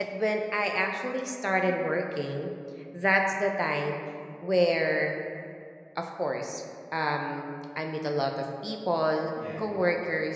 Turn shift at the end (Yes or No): No